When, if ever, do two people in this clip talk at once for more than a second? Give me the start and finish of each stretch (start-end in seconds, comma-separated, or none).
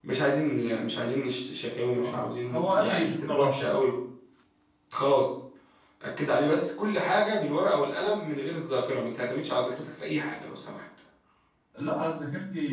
1.9-3.7